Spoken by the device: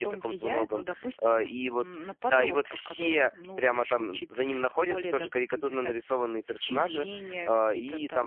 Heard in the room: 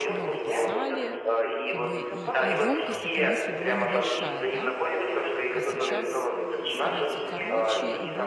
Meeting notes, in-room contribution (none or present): present